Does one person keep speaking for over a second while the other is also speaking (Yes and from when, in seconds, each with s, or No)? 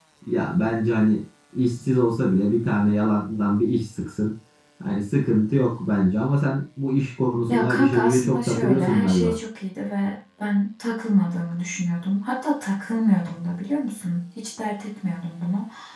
Yes, from 7.5 s